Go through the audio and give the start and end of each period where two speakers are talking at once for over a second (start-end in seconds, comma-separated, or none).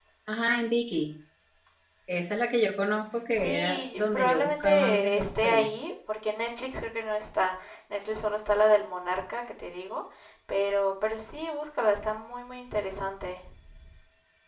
3.4-5.7